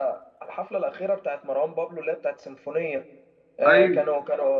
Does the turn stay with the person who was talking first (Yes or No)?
Yes